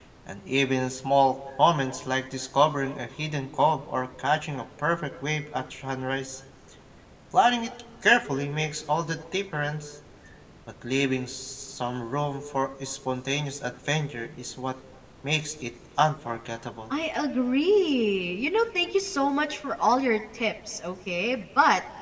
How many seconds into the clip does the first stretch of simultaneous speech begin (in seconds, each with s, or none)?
none